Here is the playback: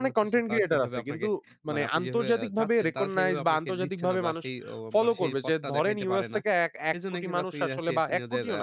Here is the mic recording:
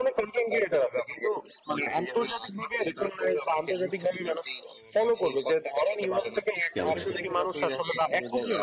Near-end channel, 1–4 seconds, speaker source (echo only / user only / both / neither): echo only